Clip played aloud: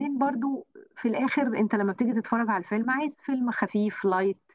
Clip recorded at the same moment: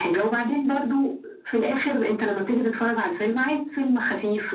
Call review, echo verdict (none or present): present